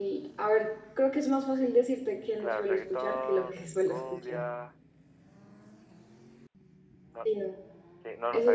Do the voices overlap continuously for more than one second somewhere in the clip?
Yes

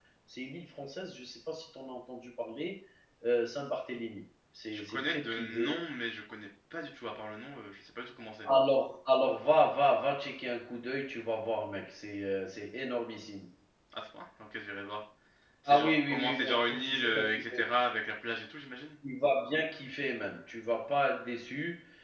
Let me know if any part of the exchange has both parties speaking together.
Yes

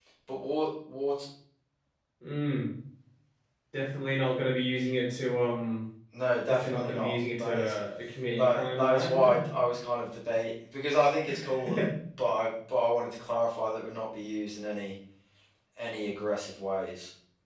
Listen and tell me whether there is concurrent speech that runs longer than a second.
Yes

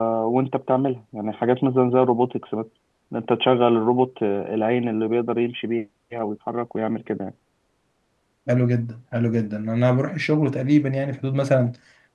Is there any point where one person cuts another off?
No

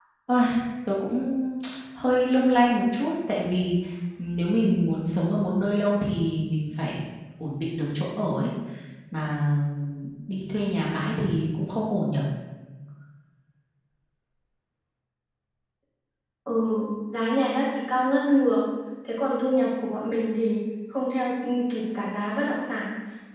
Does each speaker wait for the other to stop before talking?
Yes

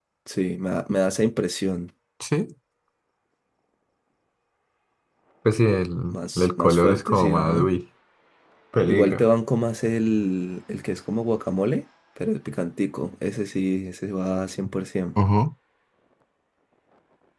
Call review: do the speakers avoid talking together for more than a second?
No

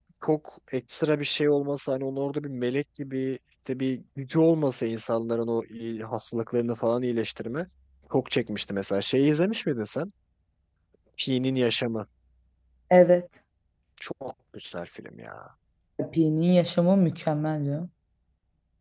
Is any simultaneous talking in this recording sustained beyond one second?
No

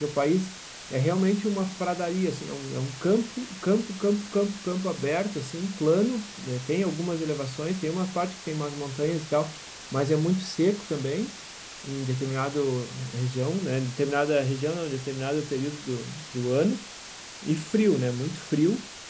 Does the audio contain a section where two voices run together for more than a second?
No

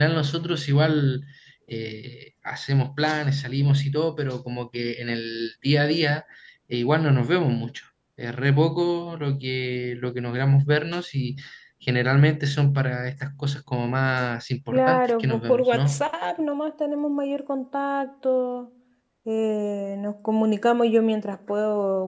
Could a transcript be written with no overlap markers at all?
No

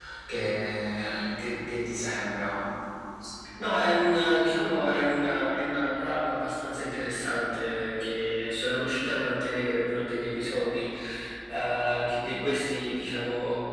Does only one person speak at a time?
Yes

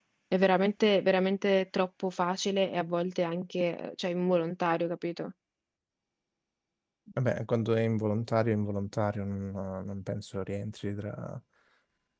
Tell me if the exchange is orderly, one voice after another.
Yes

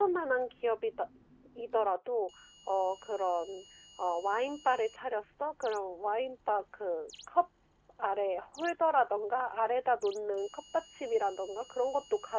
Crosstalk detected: No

